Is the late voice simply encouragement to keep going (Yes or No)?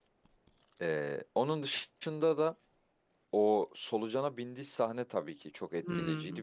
Yes